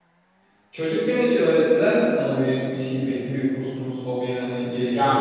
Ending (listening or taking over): taking over